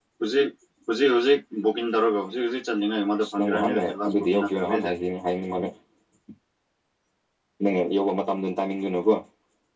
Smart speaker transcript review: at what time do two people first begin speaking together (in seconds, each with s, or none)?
3.2 s